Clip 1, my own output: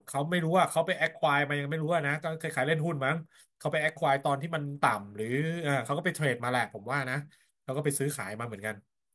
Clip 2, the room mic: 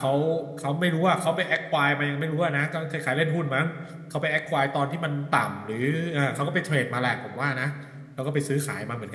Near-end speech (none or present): none